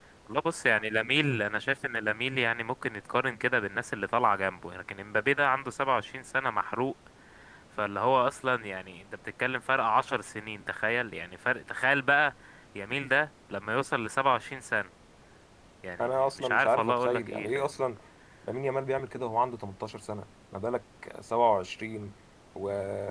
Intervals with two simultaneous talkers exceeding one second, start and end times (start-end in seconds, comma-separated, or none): 16.0-17.7